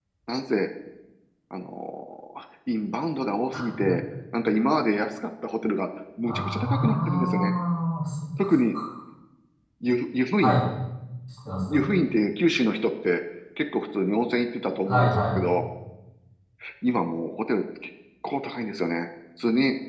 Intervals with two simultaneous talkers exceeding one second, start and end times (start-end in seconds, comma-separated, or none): 6.2-7.5